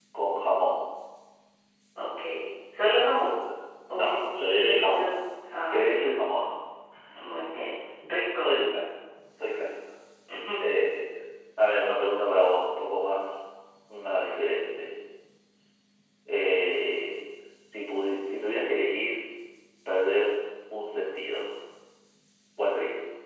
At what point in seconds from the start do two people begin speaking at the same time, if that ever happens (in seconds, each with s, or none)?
3.9 s